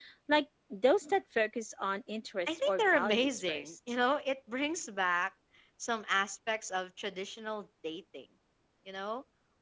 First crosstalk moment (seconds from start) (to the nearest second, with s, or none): 2 s